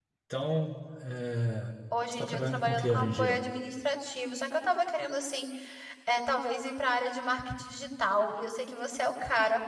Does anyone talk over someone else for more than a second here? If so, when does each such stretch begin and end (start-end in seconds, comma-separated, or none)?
2.1-3.4